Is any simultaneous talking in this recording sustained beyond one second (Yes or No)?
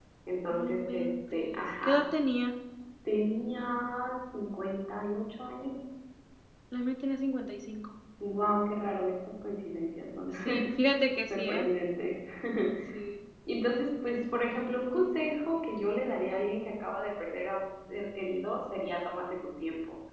Yes